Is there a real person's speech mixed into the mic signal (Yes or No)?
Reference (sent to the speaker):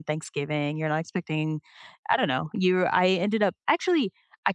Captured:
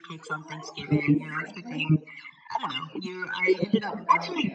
Yes